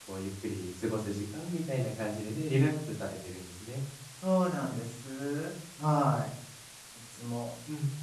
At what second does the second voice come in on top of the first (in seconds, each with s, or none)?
none